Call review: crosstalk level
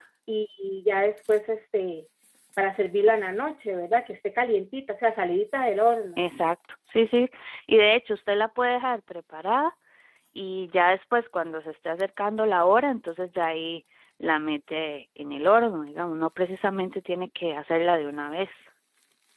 none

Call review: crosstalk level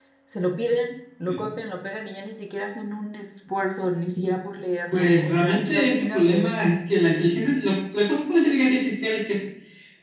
present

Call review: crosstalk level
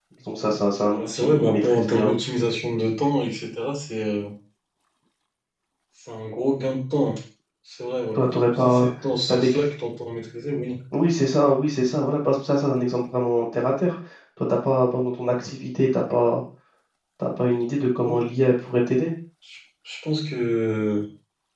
present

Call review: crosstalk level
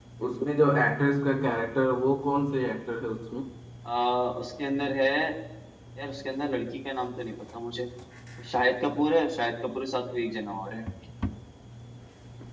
none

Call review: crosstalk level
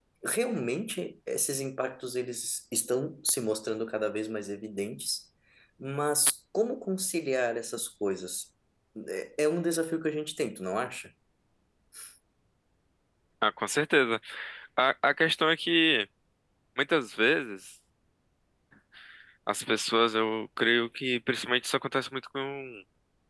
none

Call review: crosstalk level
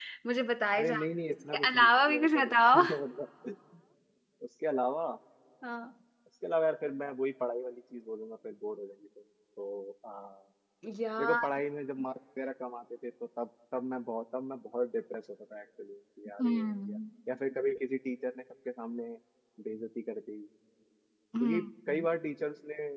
present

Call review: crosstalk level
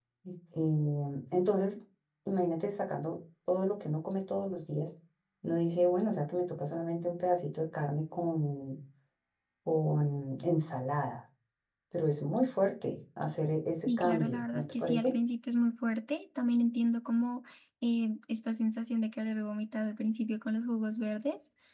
present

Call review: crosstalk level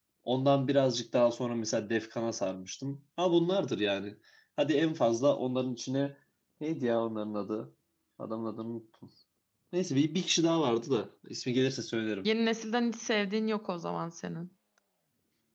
none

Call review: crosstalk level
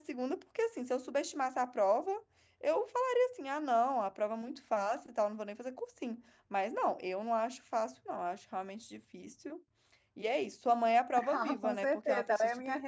present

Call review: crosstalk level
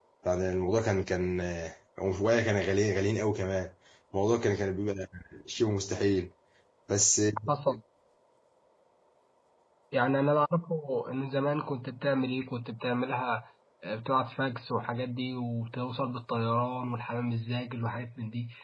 none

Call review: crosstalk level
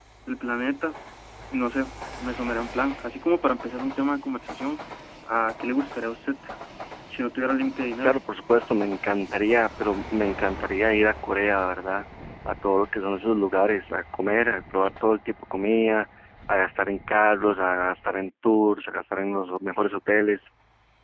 none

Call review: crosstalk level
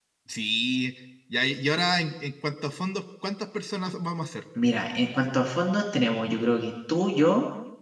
none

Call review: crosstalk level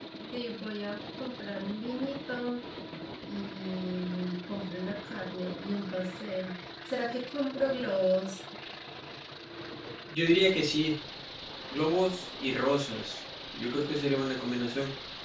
none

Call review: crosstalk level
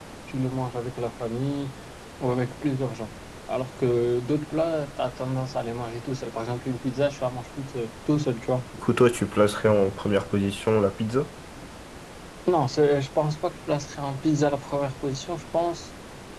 none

